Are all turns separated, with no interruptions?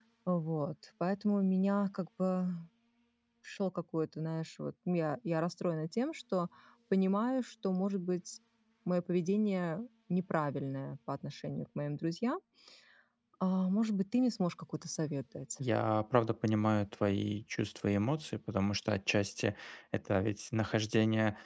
Yes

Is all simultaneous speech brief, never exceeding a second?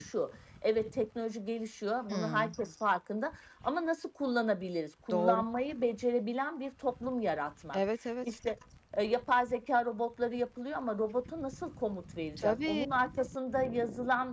Yes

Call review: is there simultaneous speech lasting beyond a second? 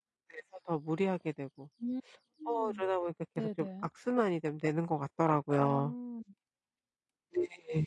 No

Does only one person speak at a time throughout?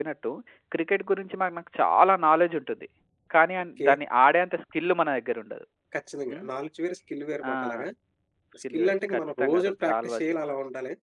No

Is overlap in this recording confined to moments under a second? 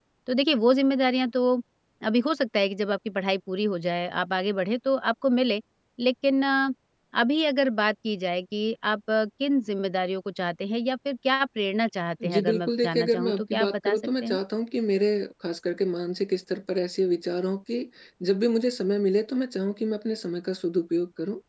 No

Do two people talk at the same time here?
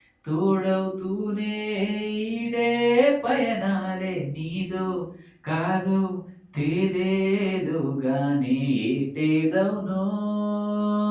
No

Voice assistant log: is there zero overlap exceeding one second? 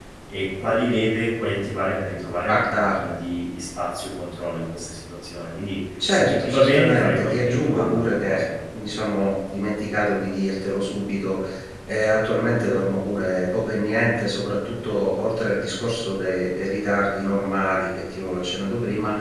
No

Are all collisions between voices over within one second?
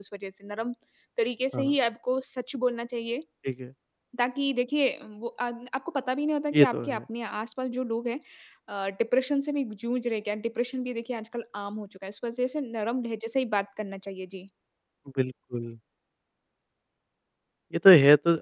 Yes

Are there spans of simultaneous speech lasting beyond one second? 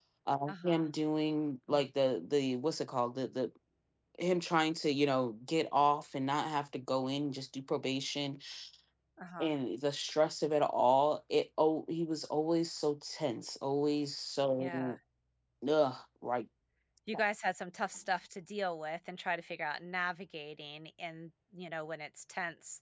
No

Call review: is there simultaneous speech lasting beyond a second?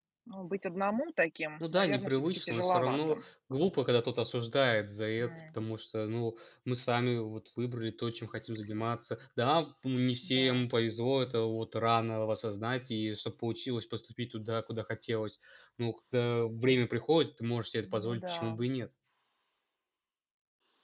Yes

